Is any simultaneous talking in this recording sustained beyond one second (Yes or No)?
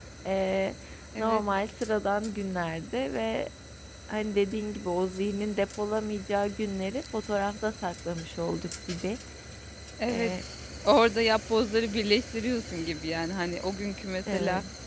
No